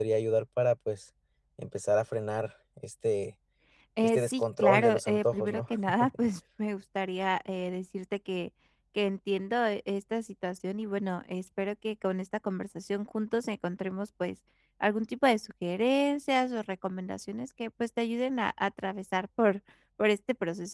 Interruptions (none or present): present